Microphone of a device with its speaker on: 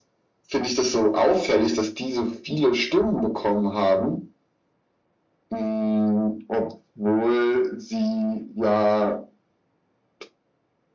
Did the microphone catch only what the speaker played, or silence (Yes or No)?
Yes